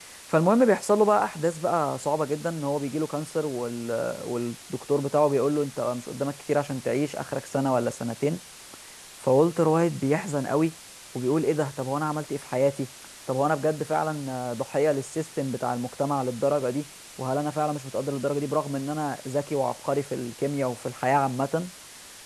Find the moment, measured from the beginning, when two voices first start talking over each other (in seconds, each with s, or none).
none